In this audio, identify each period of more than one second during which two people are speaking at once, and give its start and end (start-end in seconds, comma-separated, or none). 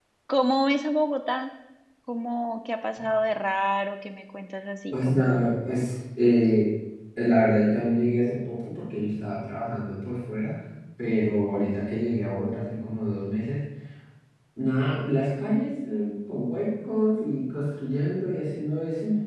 none